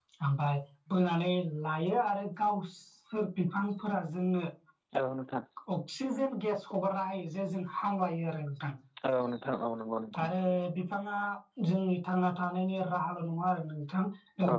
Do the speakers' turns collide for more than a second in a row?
No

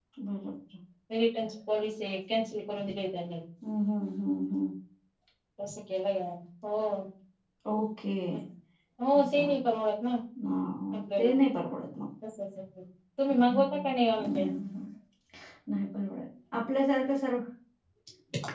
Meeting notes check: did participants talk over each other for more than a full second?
No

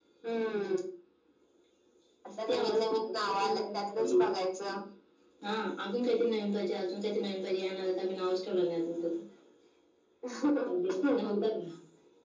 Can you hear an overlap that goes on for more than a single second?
Yes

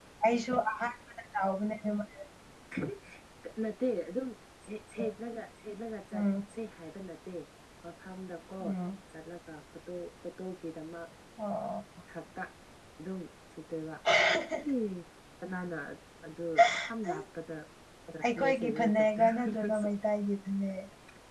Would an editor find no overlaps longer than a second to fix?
No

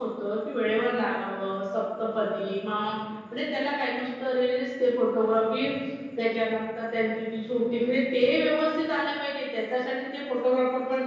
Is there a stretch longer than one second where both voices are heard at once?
No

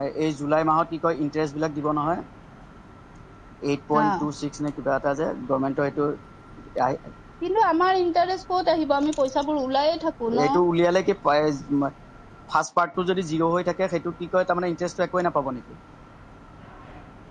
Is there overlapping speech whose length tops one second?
No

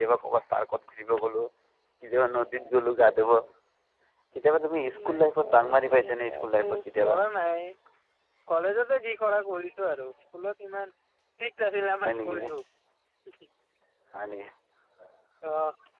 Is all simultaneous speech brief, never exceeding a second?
No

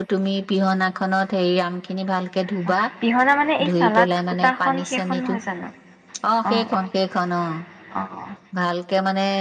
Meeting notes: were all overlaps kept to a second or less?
No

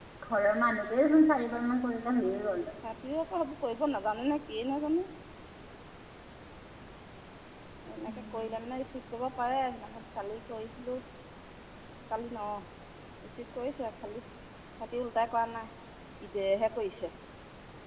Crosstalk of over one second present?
No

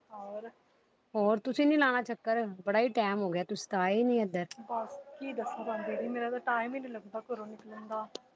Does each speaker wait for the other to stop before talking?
Yes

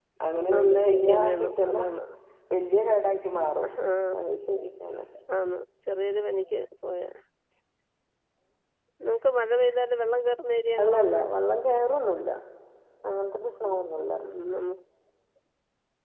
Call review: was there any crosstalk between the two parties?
Yes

